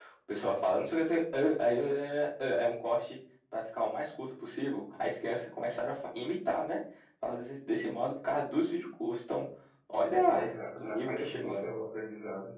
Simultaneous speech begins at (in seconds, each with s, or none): 10.2 s